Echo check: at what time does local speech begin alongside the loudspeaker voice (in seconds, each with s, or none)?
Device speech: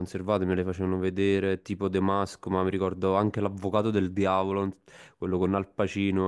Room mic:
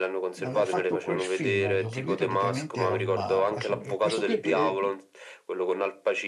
0.4 s